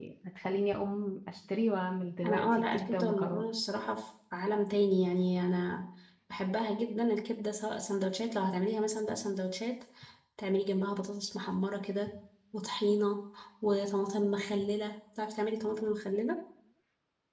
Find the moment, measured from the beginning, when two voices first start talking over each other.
2.2 s

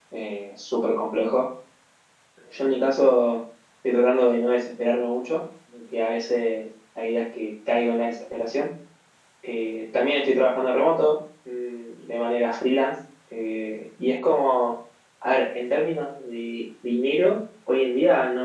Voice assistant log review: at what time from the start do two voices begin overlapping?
none

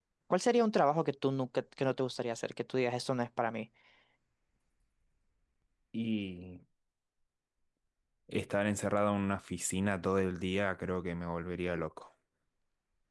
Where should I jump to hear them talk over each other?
none

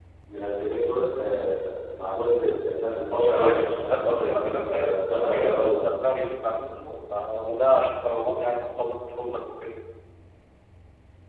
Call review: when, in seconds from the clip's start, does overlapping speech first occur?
3.2 s

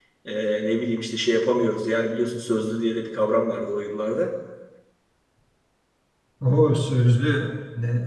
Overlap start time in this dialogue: none

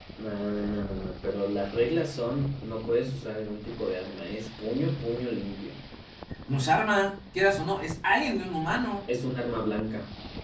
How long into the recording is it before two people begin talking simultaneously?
none

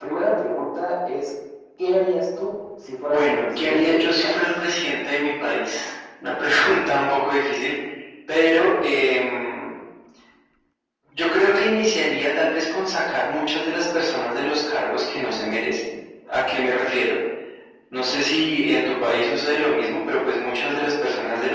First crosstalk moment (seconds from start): 3.1 s

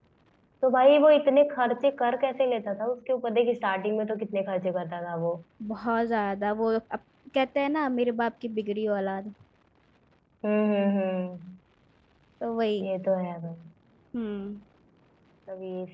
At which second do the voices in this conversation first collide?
none

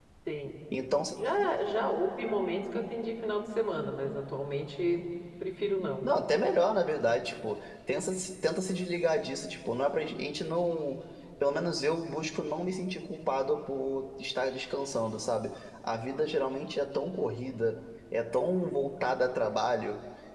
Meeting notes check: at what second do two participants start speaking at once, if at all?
none

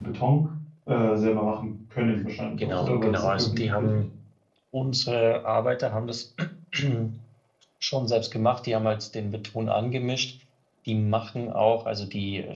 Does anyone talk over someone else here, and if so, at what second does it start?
2.6 s

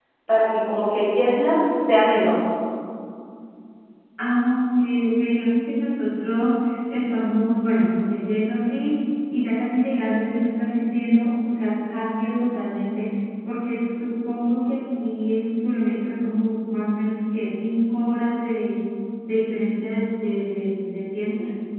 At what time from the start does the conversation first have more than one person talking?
none

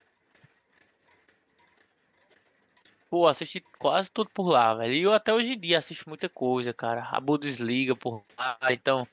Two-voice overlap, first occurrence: none

